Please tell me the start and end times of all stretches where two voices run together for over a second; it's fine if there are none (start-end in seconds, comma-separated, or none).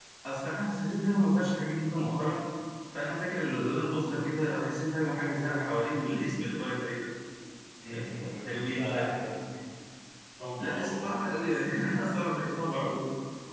7.9-9.4, 10.6-11.8